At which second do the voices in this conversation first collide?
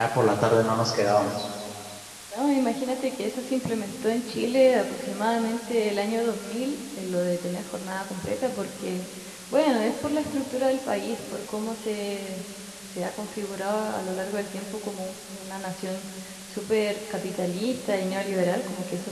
none

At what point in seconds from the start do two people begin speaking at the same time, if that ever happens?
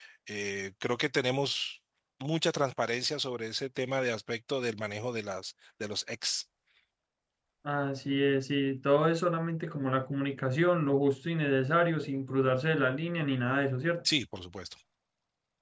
none

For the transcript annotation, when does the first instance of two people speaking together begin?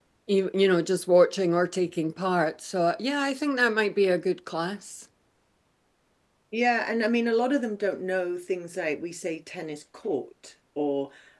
none

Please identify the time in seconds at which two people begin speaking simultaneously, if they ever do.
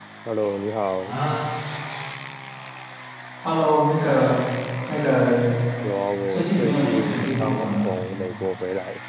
6.3 s

